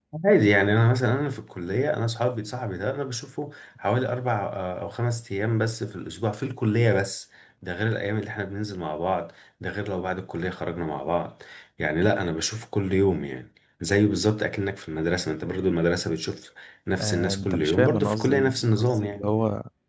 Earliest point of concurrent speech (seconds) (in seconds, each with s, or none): 16.9 s